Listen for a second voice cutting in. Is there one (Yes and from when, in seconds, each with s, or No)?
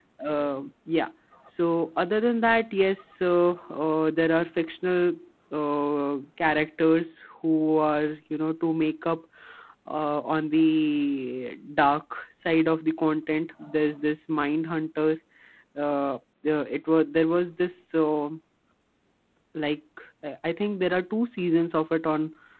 No